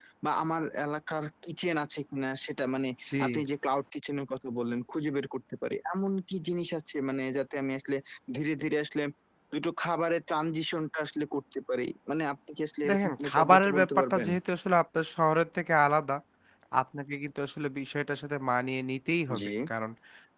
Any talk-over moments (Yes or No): Yes